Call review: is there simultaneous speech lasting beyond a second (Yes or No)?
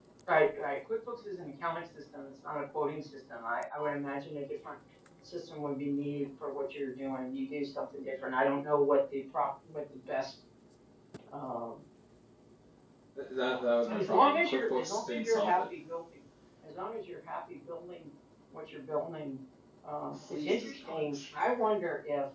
Yes